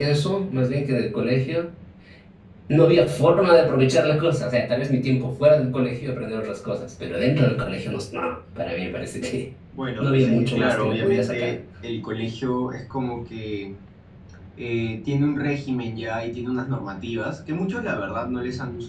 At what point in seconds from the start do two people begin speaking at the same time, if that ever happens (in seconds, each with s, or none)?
10.0 s